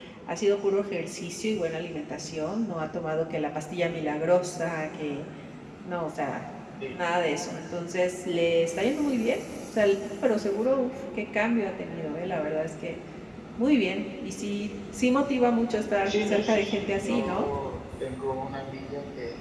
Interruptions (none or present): present